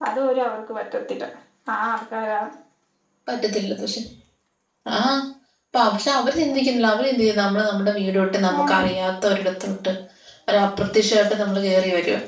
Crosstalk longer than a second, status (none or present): none